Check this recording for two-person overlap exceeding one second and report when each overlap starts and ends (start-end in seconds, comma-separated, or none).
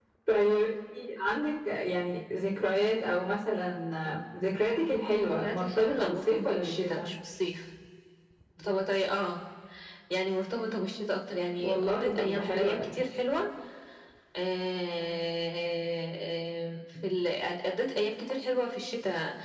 5.3-7.1, 11.6-13.1